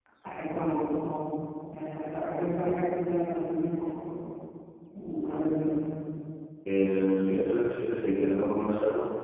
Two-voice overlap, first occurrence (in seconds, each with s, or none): none